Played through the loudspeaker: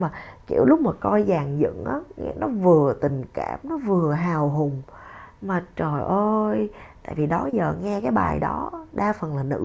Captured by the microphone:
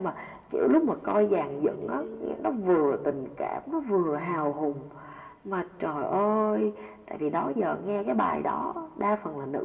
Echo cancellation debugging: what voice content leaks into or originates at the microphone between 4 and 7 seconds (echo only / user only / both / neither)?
echo only